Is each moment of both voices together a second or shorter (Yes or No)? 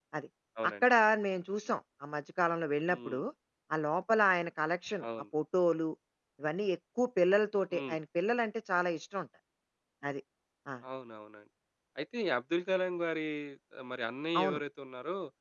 Yes